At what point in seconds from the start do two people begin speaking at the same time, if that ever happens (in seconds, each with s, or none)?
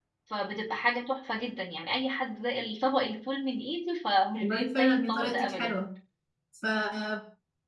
4.3 s